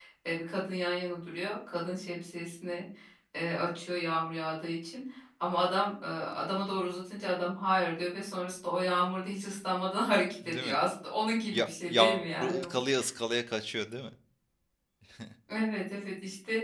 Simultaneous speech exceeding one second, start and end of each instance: 11.5-12.8

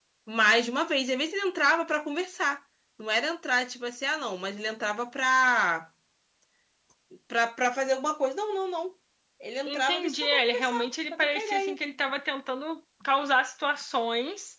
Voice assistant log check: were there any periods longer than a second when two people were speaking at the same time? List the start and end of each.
9.7-11.8

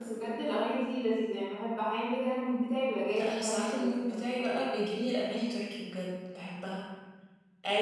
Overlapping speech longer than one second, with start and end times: 3.1-4.7

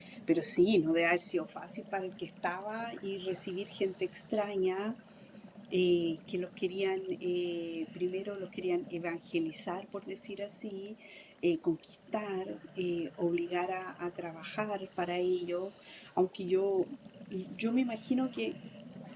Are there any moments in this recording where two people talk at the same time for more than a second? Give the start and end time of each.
none

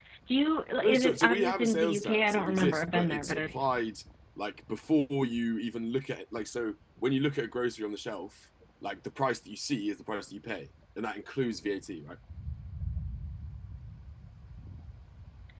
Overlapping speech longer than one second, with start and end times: 0.8-3.8

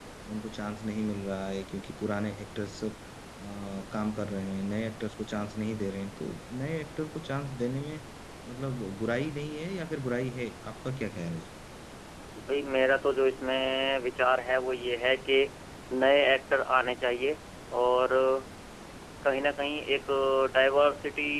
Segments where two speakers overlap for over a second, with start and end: none

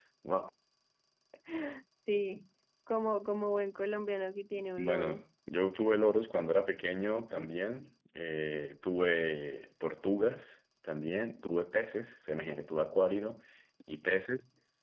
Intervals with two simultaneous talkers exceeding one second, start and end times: none

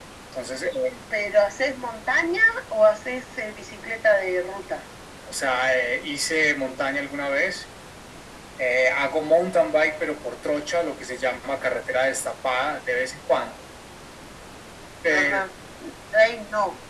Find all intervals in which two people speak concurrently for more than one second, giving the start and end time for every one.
none

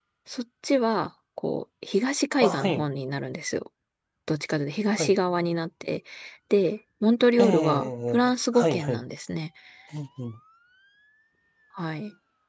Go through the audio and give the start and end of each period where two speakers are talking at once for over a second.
7.4-9.0

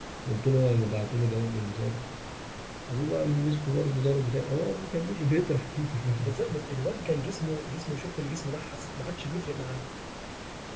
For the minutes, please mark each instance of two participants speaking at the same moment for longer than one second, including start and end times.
none

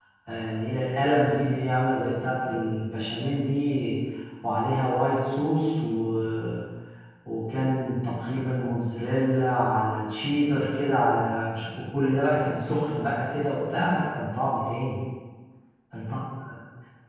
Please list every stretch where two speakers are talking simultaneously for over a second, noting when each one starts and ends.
none

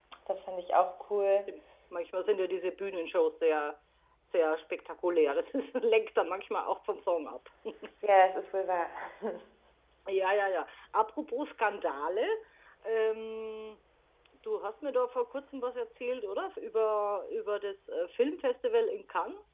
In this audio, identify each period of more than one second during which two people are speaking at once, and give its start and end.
none

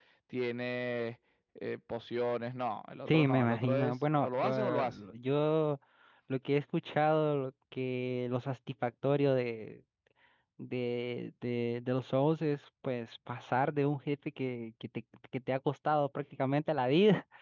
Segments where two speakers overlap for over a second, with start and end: 3.1-5.0

